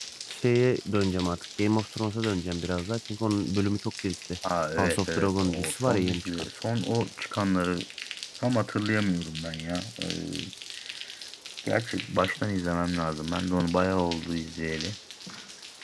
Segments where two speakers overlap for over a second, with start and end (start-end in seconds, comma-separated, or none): 4.8-6.5